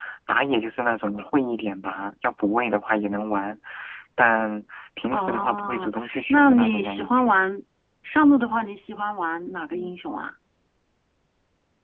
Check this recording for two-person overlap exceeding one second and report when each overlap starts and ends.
5.2-7.3

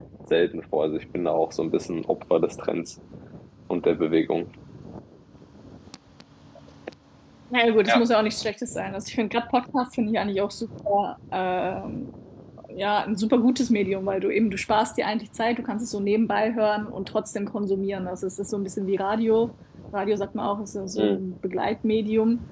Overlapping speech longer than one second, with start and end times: none

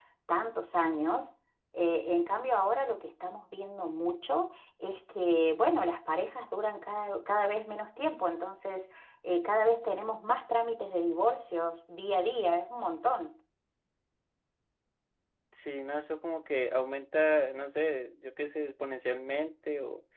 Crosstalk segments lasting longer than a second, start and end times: none

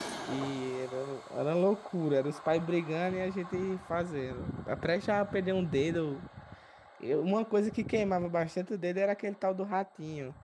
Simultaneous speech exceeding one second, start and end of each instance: none

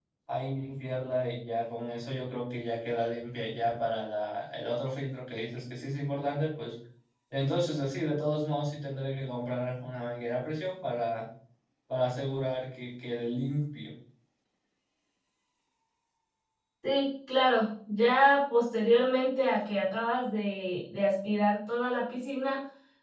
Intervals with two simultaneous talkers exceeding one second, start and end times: none

